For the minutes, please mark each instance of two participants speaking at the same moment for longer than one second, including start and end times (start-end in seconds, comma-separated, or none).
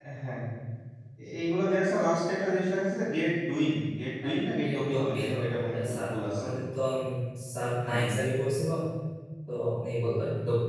4.2-6.5